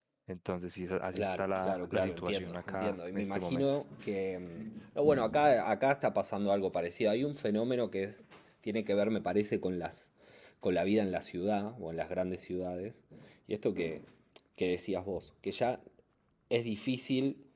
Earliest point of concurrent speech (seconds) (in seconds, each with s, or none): 1.1 s